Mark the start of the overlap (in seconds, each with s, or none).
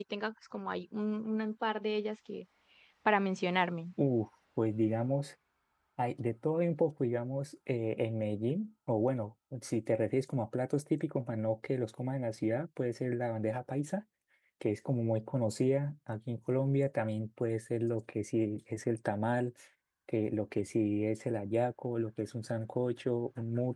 none